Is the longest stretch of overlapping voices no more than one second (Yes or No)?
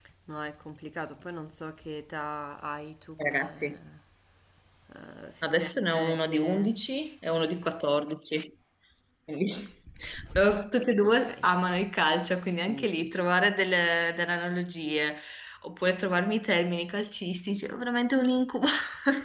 No